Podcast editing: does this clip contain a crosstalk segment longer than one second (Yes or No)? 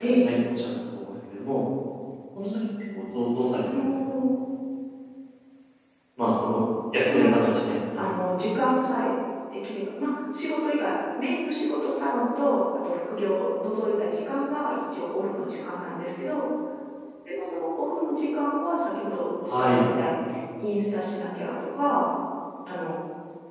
No